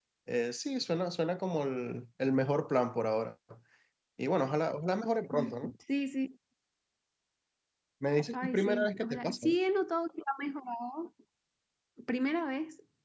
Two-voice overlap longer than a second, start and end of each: 8.3-9.5

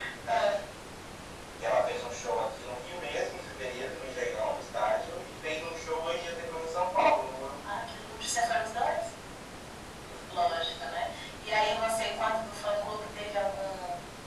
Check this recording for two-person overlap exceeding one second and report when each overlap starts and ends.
none

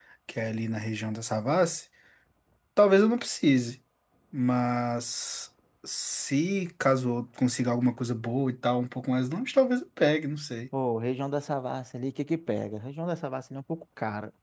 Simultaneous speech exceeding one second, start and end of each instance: none

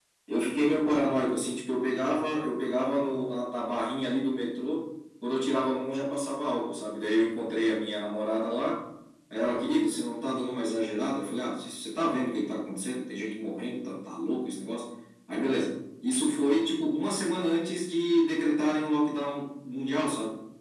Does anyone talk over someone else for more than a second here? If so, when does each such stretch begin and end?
none

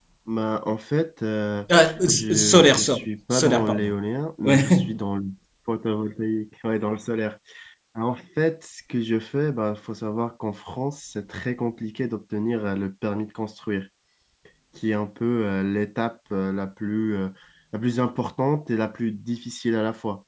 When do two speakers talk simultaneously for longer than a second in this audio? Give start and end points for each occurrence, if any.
2.1-3.9

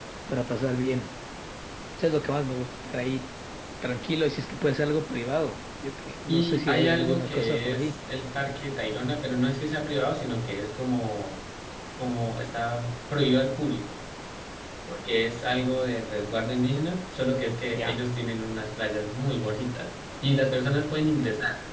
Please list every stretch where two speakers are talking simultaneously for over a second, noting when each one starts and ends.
6.3-7.8

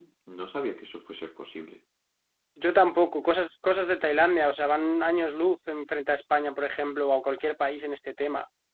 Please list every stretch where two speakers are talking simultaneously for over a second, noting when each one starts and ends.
none

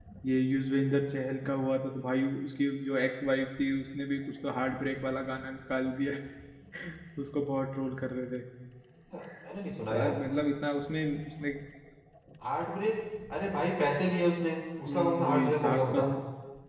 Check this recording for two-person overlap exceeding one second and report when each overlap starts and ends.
14.8-16.1

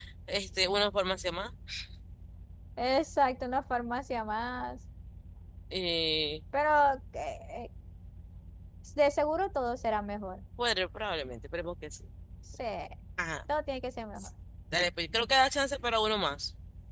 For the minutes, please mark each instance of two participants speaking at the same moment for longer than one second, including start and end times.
none

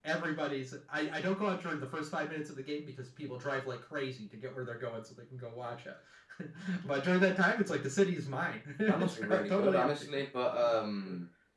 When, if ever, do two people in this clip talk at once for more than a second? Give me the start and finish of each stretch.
8.9-10.1

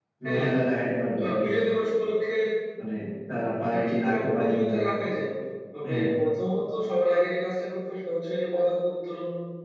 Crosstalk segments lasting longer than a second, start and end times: 3.7-5.0

